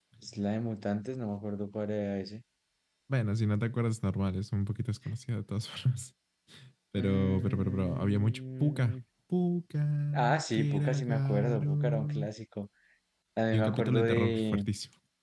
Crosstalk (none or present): present